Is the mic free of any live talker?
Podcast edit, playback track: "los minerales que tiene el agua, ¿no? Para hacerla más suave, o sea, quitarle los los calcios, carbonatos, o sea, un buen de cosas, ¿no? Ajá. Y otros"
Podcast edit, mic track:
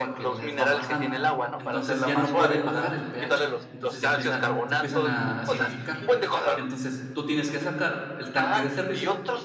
No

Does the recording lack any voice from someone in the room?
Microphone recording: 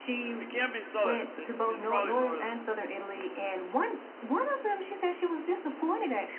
No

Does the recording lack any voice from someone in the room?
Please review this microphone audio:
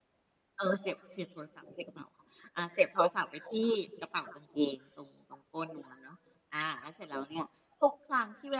Yes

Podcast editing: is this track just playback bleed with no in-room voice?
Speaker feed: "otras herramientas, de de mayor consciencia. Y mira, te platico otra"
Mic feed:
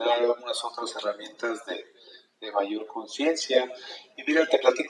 Yes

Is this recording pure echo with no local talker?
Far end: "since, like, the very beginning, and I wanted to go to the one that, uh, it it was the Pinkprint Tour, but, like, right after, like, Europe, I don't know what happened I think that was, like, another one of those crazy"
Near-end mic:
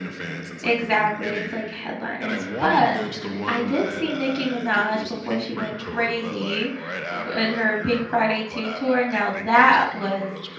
No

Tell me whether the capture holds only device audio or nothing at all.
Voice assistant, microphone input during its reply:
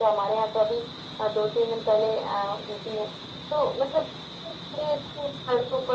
Yes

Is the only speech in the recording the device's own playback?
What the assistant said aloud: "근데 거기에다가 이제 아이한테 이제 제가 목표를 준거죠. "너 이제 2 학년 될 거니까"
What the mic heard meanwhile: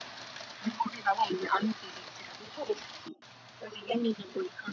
Yes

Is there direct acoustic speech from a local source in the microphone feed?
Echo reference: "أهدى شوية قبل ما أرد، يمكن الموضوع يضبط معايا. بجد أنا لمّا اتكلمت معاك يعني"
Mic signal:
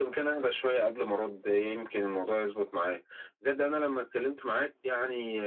No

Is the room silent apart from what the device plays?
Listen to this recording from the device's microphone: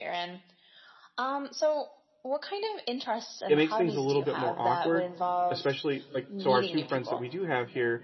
No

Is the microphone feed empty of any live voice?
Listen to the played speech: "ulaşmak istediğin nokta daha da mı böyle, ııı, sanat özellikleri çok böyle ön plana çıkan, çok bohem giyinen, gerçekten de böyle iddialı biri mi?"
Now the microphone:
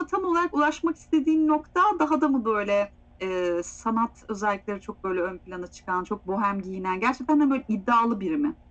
Yes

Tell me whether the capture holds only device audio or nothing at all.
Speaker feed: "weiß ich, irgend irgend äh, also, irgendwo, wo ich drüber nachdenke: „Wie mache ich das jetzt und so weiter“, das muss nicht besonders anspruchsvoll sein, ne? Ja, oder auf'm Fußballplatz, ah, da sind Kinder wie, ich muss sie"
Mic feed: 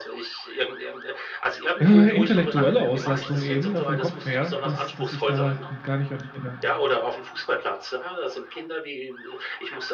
No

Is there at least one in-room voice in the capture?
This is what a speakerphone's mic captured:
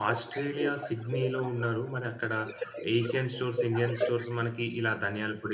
Yes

